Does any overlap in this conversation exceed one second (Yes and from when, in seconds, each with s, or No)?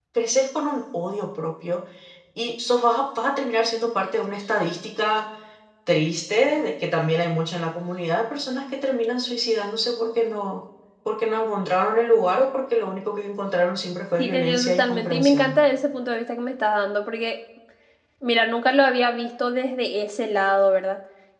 Yes, from 14.2 s